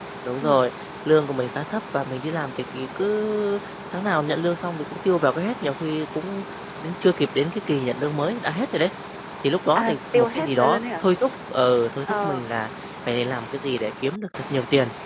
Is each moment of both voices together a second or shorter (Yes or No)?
No